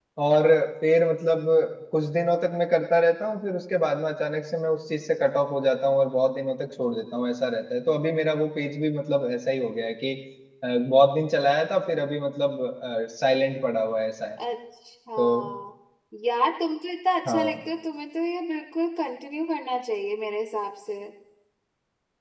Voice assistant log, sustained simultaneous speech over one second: none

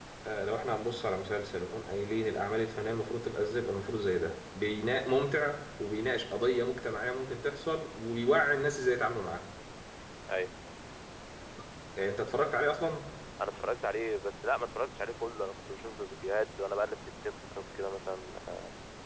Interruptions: none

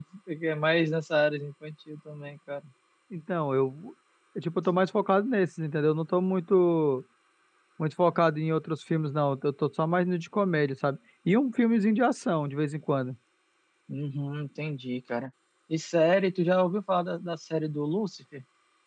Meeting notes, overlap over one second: none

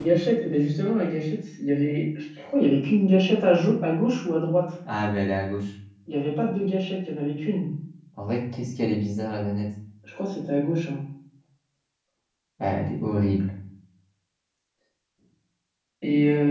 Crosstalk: none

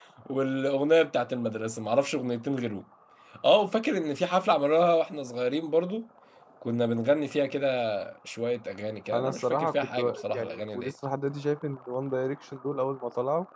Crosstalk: present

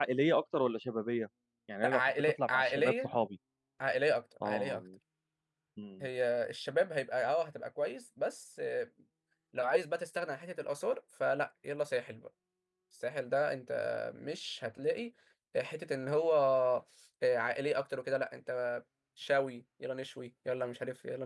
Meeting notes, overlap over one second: present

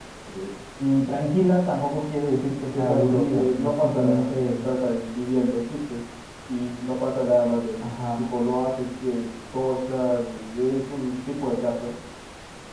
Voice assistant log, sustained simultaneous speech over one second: present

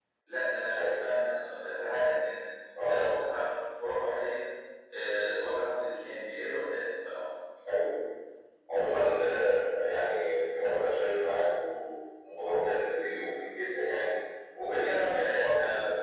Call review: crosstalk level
present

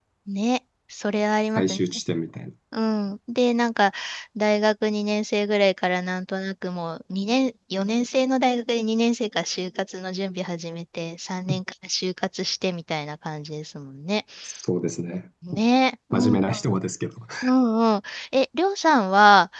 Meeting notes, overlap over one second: none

